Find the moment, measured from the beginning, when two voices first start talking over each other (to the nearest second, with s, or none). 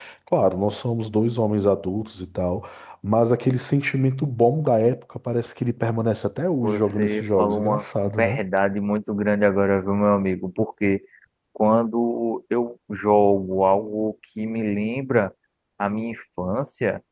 7 s